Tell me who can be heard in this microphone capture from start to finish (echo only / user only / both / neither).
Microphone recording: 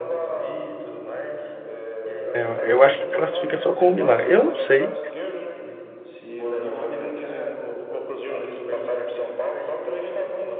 both